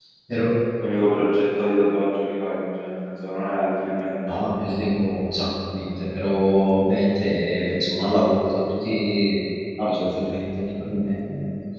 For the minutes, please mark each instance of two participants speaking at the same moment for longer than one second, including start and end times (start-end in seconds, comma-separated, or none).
none